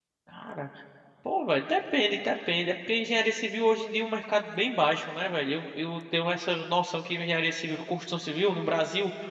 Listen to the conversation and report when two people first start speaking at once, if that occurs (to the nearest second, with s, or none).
none